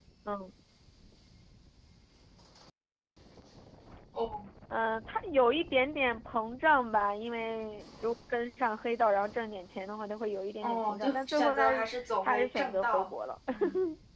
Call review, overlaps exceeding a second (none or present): present